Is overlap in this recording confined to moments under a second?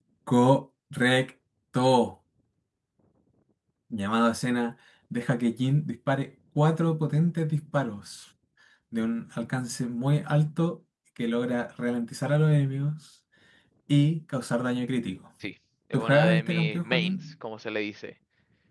No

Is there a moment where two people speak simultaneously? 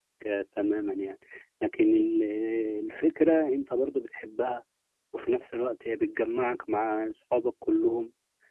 No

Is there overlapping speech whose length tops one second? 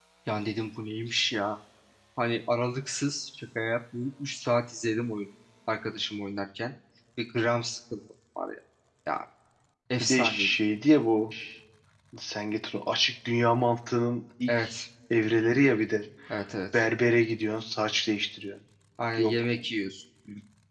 No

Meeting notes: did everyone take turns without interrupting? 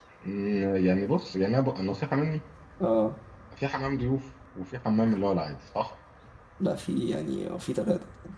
Yes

